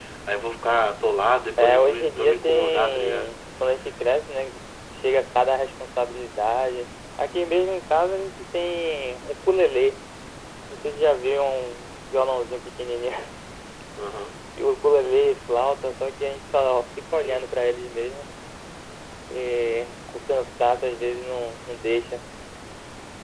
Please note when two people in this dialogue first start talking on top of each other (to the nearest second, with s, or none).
2 s